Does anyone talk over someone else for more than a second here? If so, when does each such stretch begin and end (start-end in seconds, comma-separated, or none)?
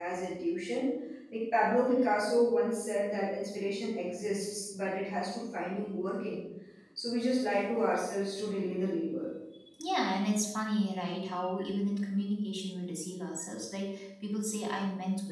none